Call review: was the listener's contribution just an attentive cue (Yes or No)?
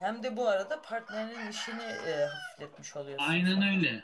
No